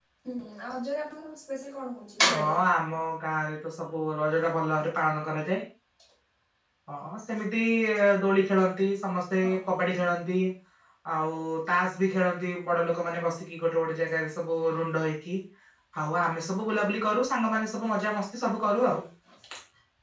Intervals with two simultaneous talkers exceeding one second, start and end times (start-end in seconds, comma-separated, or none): none